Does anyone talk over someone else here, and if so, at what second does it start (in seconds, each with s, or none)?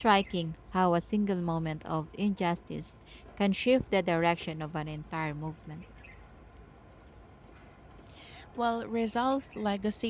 none